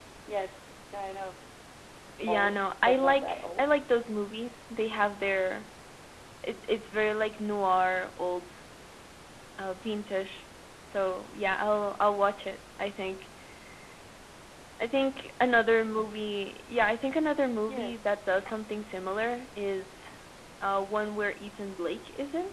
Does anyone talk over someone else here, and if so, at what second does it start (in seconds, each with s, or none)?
2.3 s